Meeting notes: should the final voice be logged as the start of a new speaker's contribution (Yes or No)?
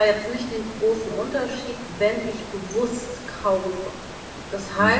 Yes